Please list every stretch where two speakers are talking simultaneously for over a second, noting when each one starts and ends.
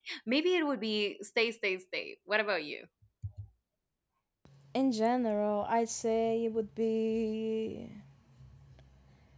none

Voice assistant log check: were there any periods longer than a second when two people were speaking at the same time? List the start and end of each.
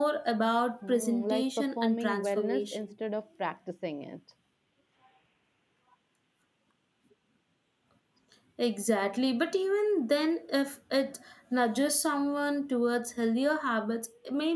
0.9-2.8

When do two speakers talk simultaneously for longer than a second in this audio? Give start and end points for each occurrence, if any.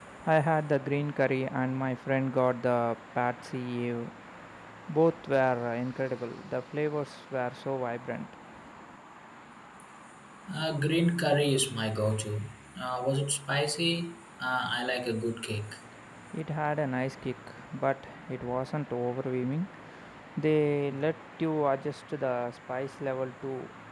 none

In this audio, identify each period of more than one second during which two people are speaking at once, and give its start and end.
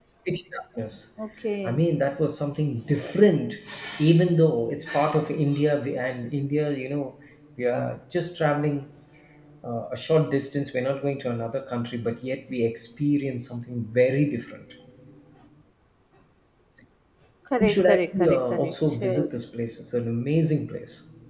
17.6-19.3

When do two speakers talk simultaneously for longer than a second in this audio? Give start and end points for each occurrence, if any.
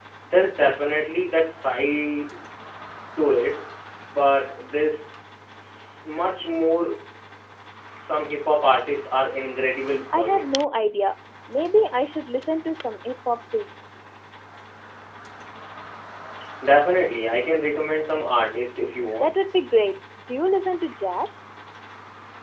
none

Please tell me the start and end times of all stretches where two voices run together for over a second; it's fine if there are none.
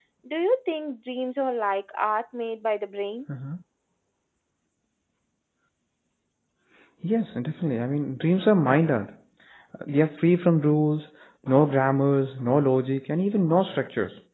none

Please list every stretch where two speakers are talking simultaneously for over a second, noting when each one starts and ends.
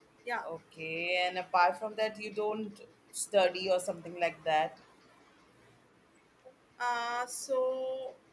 none

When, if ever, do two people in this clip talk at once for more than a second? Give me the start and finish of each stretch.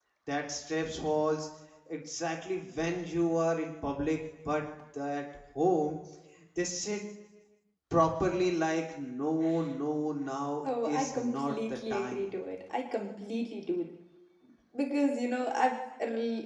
10.8-12.3

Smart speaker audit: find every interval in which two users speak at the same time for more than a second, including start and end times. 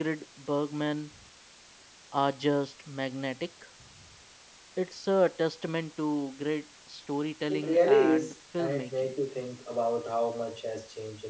7.5-9.1

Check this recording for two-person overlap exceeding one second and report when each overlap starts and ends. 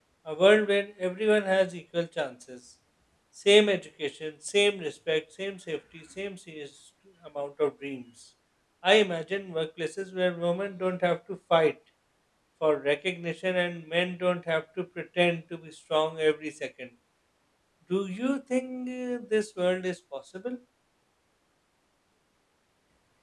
none

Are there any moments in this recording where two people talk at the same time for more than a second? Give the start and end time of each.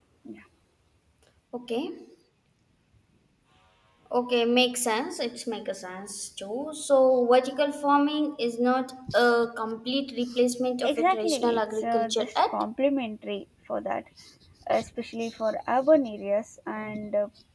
10.8-12.6

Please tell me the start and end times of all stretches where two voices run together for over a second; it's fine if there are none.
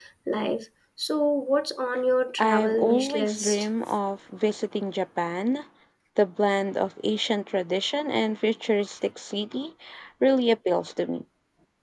2.4-3.7

